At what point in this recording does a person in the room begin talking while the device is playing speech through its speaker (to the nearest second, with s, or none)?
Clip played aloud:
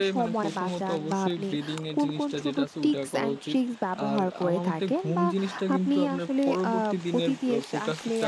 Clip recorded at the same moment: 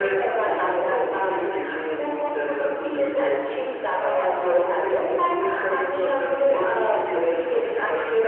none